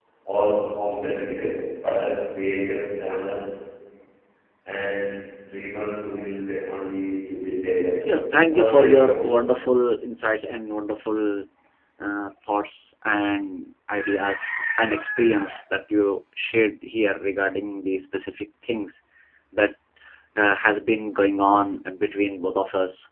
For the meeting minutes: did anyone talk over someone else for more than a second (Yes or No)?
Yes